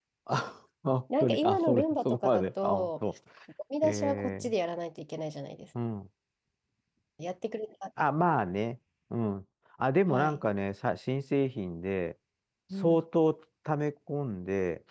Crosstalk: present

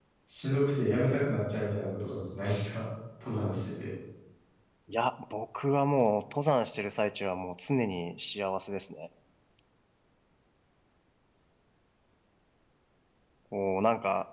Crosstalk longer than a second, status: none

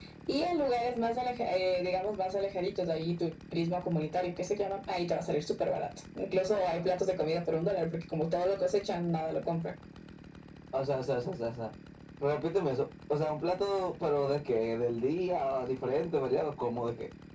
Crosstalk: none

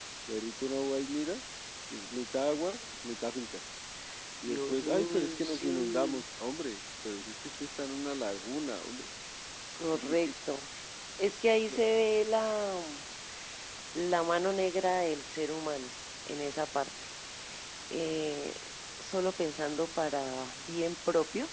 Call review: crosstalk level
present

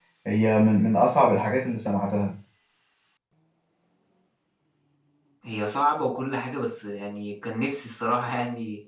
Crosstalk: none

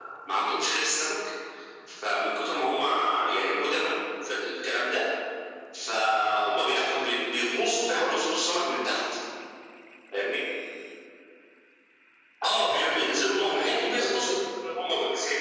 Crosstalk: present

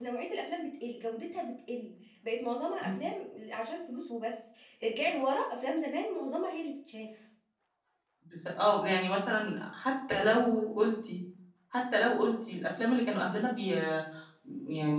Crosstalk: none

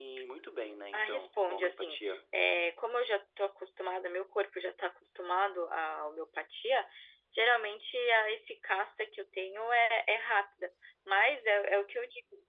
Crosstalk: present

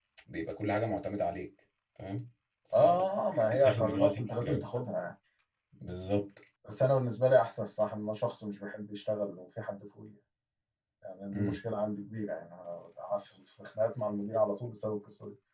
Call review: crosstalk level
present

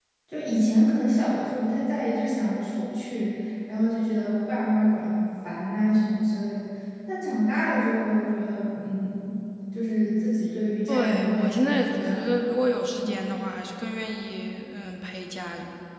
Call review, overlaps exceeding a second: present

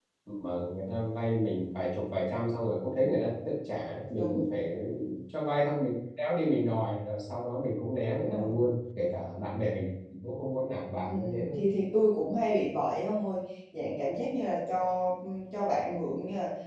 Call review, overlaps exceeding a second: none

